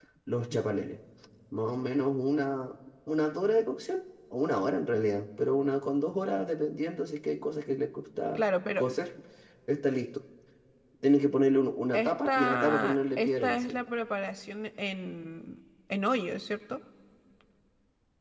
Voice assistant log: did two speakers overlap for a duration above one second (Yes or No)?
Yes